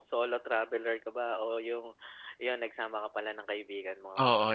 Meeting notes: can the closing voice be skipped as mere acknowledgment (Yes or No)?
No